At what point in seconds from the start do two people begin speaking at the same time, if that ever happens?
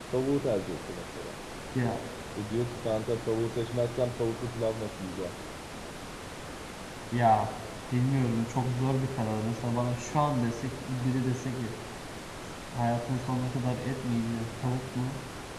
none

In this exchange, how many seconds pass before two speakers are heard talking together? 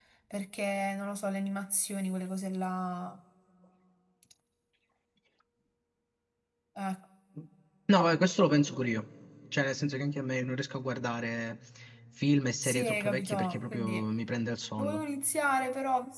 12.6 s

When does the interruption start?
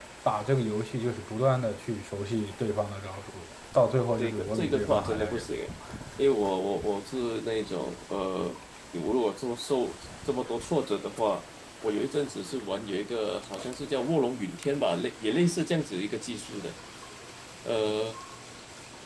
4.2 s

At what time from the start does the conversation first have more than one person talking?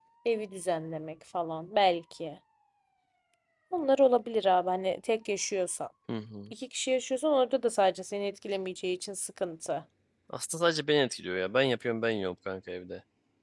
none

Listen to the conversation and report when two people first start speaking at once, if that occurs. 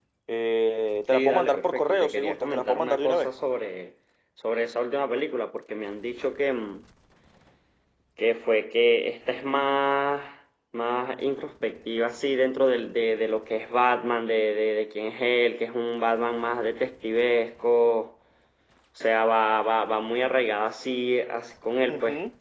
1.1 s

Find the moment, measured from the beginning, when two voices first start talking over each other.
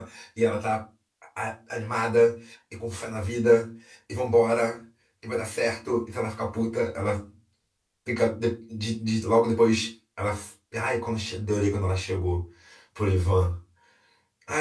none

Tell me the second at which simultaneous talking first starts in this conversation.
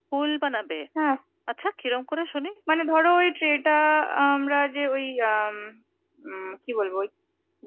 none

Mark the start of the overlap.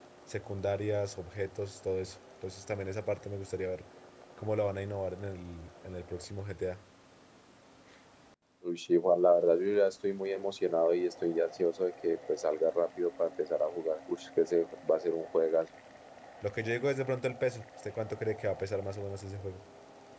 none

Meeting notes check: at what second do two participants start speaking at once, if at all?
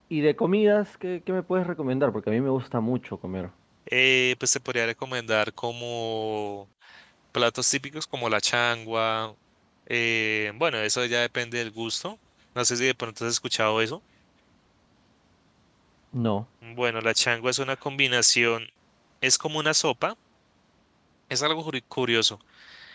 none

